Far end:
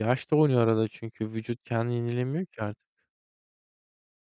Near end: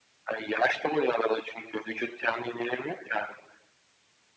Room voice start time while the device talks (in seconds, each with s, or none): none